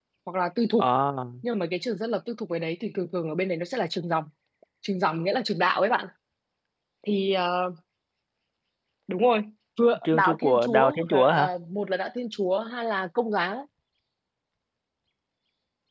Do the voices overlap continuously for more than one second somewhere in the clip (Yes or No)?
Yes